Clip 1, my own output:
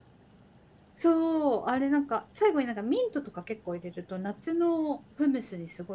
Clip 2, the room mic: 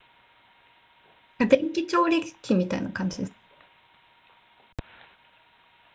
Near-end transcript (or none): 電気調理器みたいな感じです。